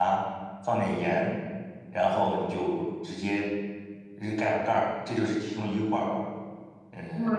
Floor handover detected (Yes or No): Yes